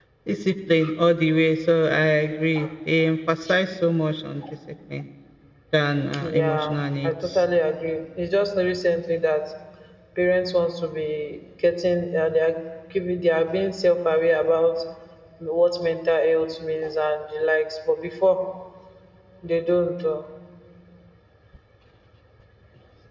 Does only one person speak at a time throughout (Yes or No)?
No